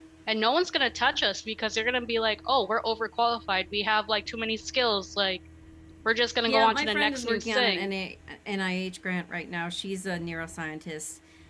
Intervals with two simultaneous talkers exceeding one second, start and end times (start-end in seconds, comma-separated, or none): 6.5-7.9